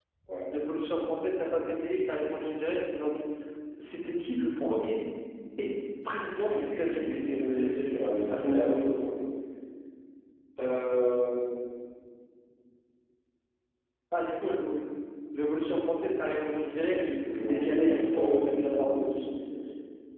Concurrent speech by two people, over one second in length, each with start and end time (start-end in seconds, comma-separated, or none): 6.3-7.7, 16.4-19.1